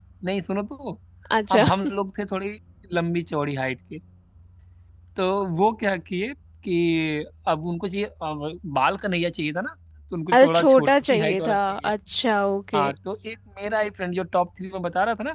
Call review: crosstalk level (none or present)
present